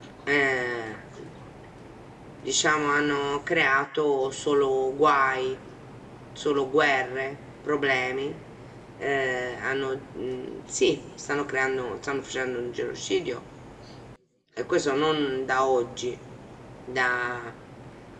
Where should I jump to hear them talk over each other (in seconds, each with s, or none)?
none